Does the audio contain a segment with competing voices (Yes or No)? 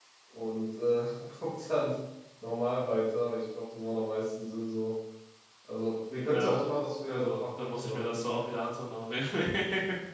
Yes